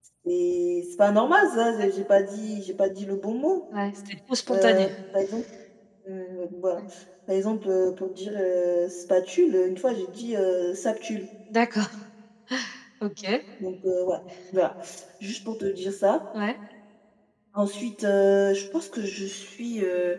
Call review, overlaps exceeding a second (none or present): none